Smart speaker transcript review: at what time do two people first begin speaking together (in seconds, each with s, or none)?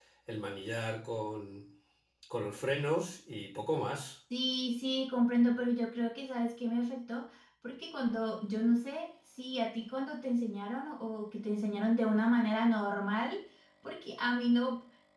none